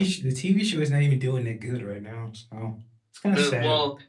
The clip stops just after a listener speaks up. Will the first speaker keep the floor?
No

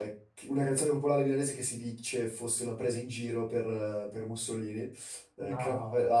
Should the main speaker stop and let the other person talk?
No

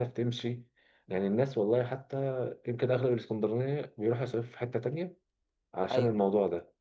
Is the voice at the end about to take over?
No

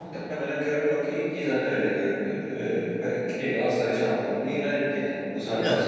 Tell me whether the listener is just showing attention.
No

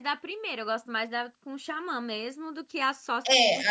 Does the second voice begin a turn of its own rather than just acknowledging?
Yes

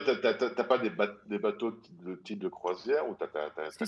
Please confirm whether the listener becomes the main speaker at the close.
No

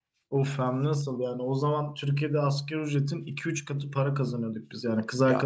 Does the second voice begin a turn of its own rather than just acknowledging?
No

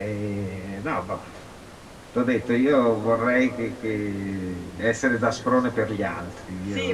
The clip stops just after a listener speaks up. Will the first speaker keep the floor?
No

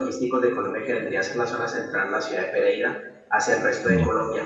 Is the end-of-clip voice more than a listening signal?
No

